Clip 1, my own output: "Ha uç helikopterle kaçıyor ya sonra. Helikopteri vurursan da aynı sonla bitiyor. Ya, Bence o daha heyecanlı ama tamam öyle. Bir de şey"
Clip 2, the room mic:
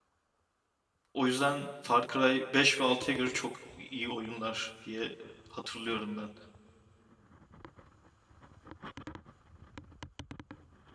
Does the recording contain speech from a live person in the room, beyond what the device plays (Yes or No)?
Yes